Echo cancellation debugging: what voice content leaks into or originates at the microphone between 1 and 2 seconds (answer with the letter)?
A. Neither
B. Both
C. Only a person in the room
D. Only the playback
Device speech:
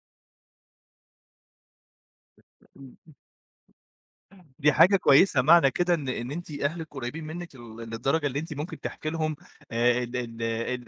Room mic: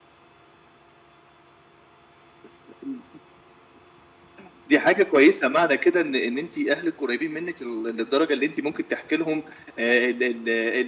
A